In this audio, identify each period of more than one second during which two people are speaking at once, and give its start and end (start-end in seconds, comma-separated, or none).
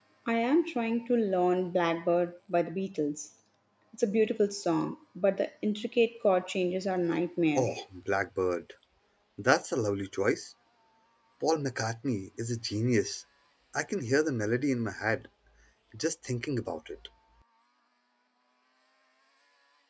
none